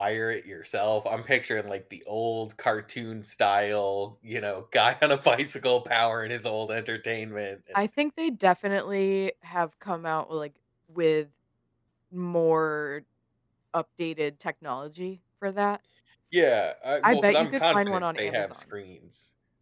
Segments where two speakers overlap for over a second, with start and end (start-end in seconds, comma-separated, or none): 17.0-18.6